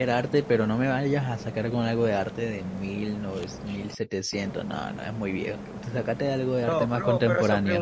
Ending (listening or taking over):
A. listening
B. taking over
B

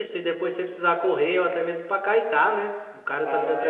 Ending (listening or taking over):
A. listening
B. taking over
B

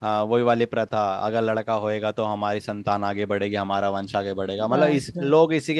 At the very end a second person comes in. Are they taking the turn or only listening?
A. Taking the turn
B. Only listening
B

